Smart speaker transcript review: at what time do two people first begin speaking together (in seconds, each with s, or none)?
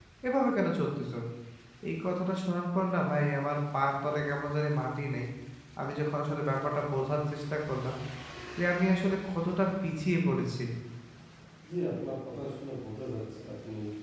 none